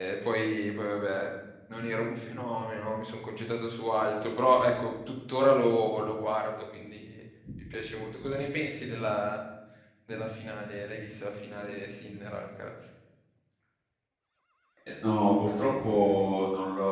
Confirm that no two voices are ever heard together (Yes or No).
Yes